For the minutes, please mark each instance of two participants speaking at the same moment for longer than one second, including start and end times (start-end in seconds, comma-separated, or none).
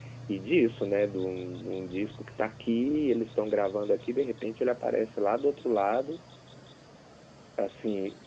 none